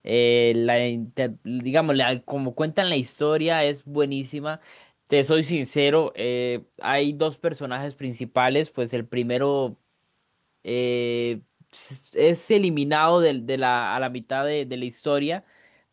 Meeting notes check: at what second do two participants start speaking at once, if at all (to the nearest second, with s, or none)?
none